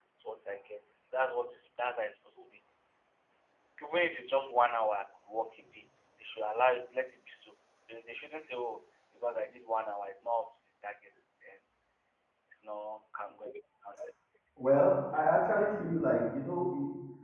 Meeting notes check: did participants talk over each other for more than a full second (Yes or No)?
No